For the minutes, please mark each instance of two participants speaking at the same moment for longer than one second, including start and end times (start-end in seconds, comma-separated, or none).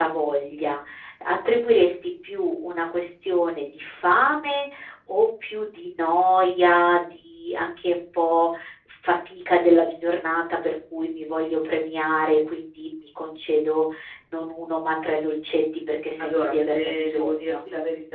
16.2-17.6